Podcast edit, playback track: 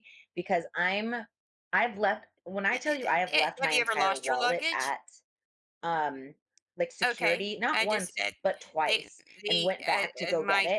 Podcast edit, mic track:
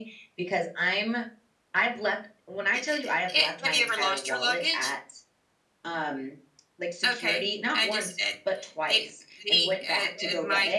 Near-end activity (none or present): none